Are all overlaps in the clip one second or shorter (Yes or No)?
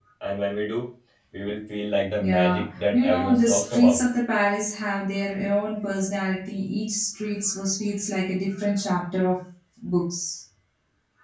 No